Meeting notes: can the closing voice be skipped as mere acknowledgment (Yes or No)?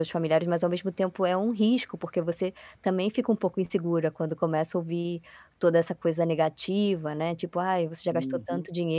Yes